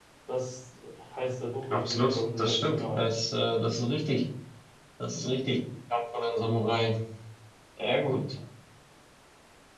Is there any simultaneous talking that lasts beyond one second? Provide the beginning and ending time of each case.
1.7-3.1

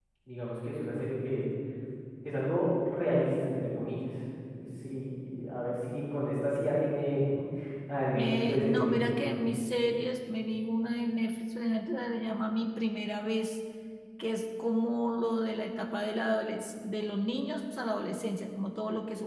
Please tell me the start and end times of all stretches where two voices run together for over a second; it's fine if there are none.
8.1-9.4

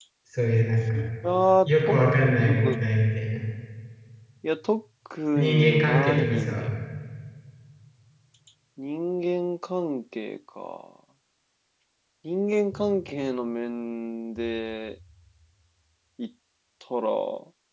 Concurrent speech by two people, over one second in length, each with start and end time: 5.4-6.7

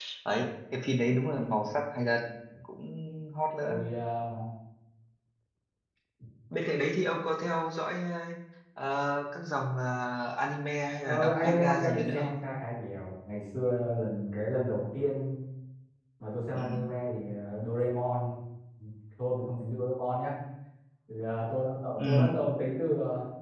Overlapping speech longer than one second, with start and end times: 11.0-12.3

